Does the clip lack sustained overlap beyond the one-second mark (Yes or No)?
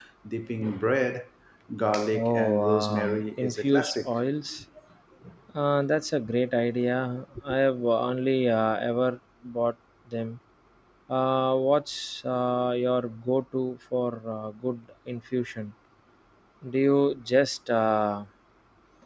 No